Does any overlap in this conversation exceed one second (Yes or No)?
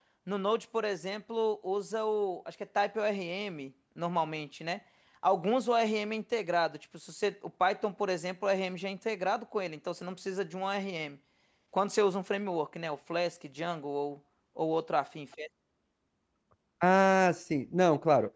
No